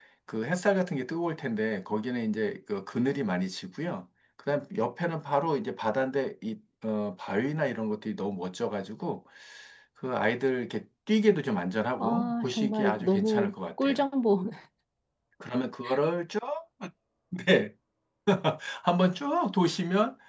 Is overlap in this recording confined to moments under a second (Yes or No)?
No